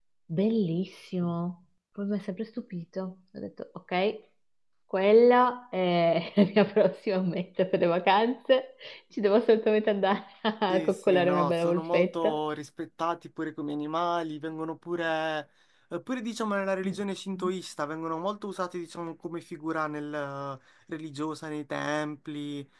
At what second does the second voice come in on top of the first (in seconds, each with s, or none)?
10.7 s